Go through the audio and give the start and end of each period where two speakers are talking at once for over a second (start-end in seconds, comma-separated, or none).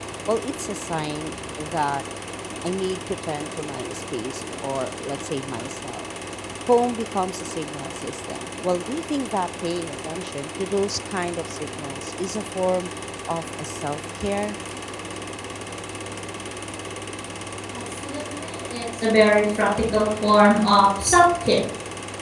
none